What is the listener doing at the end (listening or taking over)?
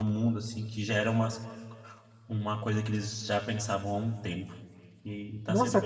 taking over